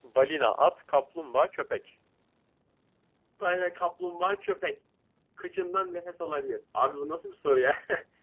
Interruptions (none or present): none